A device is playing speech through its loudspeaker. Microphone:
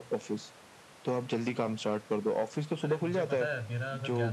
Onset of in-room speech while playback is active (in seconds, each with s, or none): 2.8 s